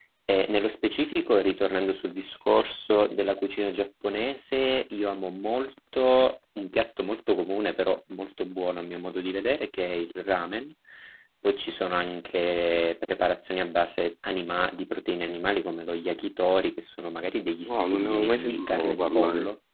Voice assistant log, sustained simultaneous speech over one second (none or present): present